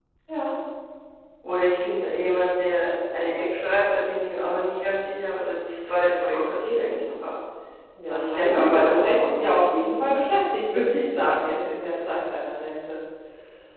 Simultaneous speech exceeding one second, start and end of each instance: 8.1-9.7

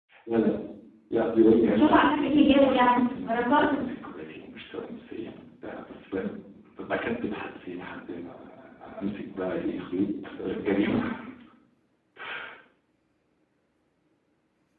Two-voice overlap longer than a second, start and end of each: 1.7-3.8

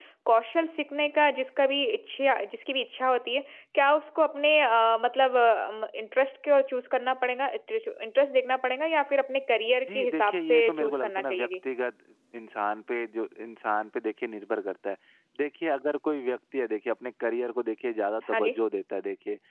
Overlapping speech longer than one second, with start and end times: 9.9-11.5

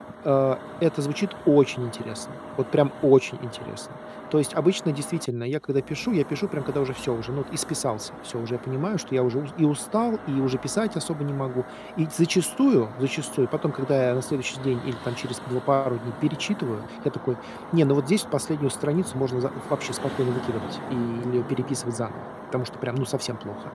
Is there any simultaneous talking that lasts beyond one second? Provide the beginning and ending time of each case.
none

